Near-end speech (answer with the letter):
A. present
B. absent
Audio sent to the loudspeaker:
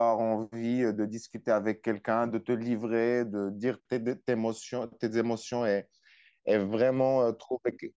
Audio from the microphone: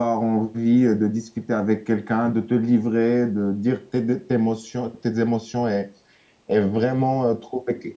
B